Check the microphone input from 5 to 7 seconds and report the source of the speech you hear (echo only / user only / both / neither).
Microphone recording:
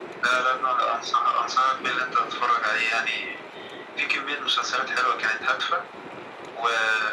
echo only